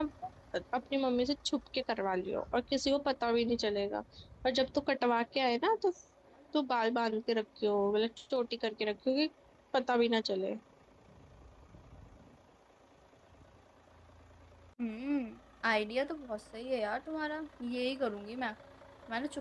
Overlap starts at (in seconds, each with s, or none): none